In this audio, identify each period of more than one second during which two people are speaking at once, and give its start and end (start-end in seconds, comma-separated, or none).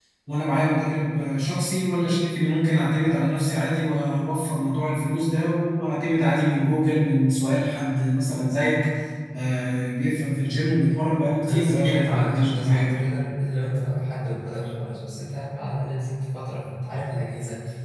11.5-13.0